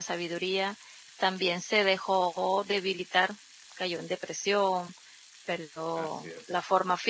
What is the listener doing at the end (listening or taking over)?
listening